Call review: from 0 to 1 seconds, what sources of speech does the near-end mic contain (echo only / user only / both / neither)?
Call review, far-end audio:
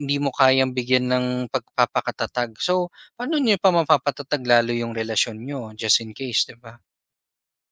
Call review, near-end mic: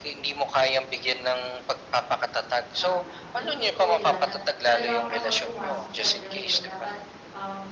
echo only